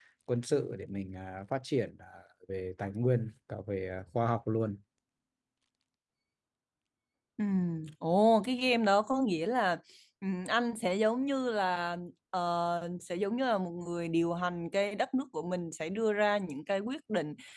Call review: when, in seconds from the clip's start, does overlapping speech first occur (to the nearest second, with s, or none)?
none